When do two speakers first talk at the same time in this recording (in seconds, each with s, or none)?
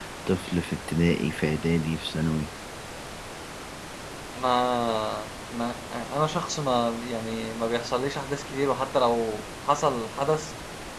none